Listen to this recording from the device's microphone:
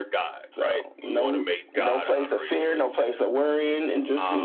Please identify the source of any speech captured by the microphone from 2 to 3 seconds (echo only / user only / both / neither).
echo only